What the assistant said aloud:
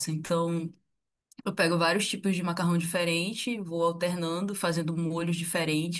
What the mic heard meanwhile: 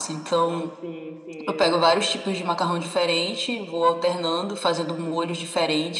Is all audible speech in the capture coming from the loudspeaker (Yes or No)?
No